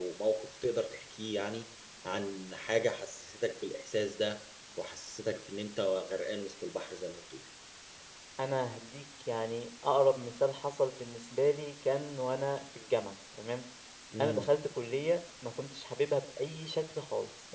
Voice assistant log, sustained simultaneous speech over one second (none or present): none